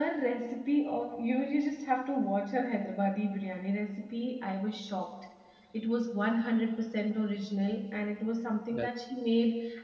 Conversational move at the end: listening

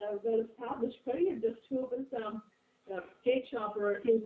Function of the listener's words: listening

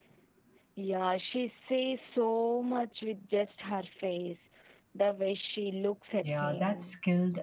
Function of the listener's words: taking over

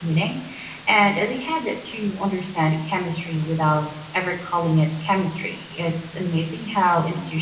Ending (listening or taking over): listening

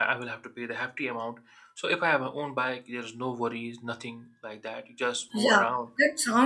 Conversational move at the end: taking over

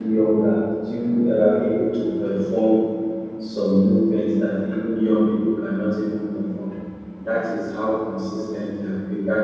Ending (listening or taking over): listening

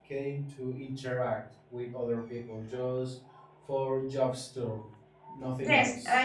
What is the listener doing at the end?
taking over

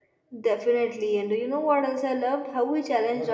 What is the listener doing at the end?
listening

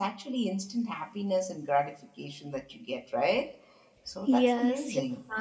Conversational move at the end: taking over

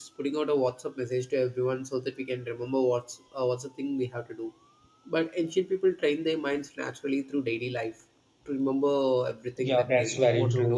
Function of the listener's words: taking over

